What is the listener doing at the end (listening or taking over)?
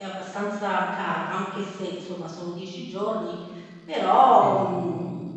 listening